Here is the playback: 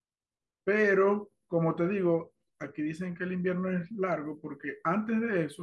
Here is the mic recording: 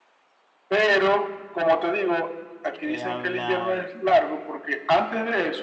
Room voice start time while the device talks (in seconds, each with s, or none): 2.7 s